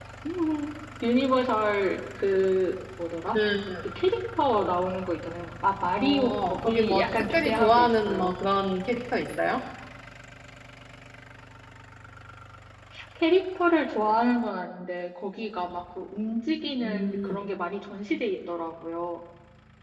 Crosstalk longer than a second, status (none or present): present